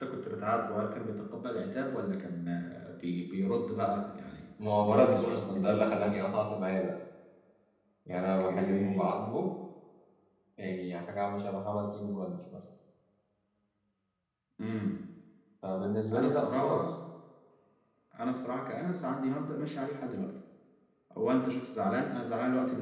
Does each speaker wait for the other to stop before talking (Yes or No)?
No